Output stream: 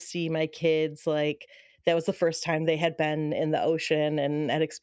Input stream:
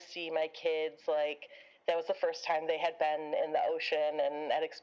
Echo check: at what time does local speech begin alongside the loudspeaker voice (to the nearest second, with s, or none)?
none